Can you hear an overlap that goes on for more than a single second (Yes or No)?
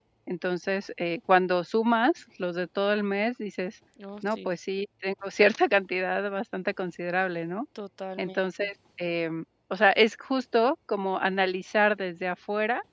No